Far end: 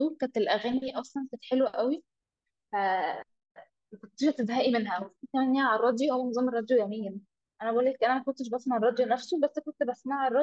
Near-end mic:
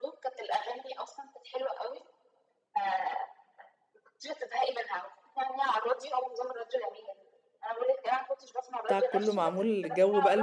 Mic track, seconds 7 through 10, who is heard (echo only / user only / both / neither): both